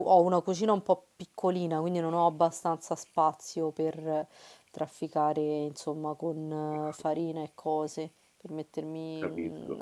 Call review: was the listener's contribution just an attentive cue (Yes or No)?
Yes